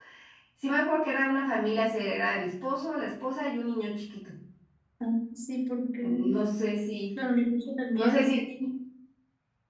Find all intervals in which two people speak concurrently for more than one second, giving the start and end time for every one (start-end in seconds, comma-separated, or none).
none